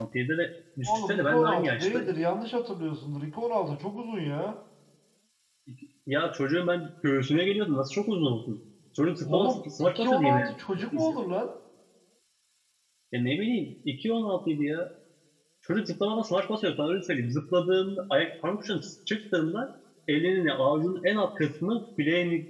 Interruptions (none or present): present